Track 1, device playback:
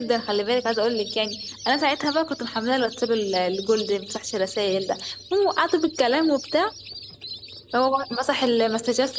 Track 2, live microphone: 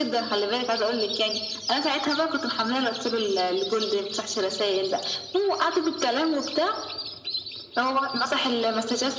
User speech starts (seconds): none

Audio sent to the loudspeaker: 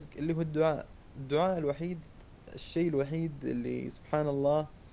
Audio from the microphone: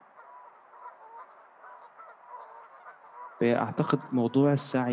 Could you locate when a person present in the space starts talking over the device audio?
3 s

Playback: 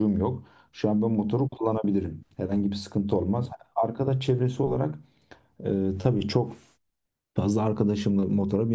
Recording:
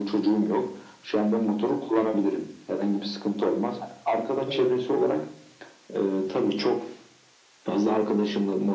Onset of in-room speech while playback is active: 4 s

